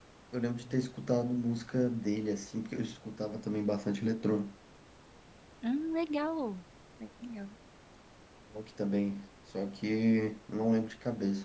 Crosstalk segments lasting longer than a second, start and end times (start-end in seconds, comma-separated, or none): none